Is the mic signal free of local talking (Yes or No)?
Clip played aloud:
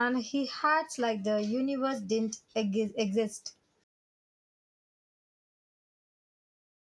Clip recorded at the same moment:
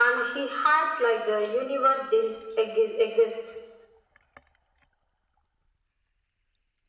Yes